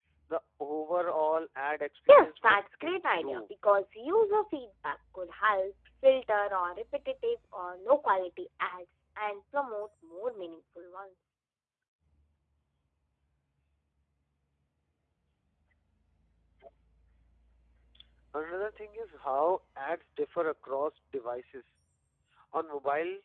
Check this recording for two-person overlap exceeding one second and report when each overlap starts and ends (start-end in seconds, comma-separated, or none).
2.1-3.5